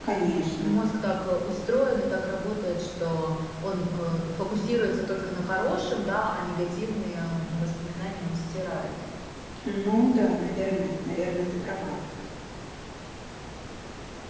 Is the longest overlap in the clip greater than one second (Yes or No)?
No